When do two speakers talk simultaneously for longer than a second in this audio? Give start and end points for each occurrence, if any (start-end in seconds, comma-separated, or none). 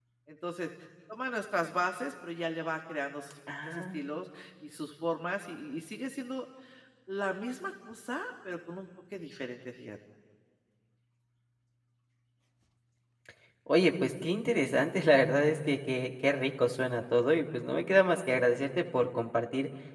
none